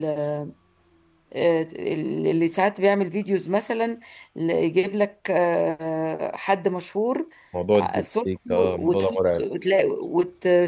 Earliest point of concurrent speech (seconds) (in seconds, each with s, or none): 7.8 s